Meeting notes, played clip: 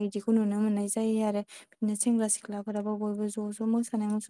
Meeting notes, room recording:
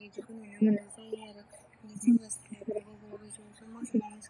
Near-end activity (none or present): none